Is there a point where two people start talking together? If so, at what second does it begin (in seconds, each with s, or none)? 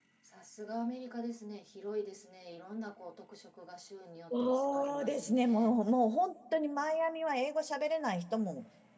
4.3 s